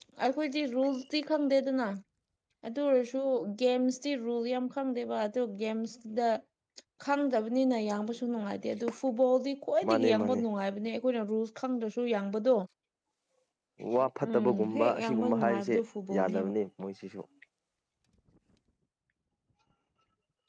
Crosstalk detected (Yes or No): Yes